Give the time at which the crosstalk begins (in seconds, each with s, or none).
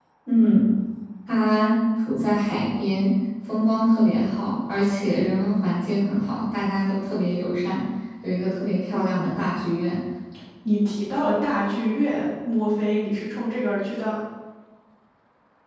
none